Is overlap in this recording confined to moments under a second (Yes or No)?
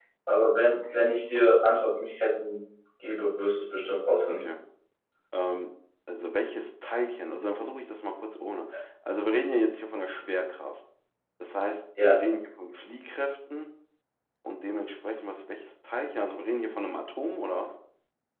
Yes